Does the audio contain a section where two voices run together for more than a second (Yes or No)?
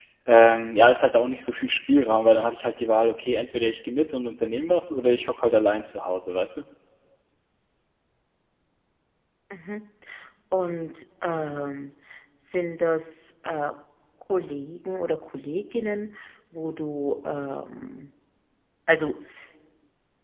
No